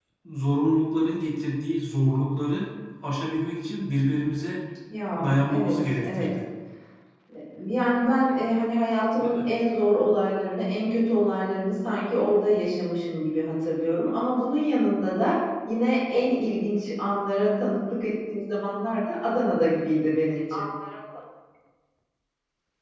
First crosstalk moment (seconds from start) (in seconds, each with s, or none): 5.1 s